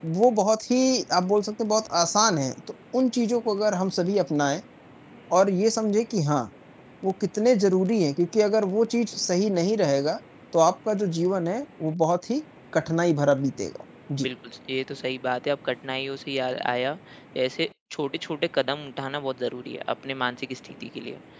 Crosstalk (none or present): none